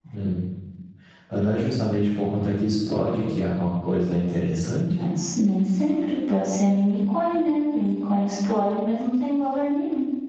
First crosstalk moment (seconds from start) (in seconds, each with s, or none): none